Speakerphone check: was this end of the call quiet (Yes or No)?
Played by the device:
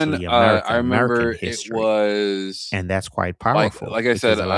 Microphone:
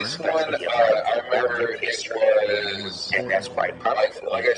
No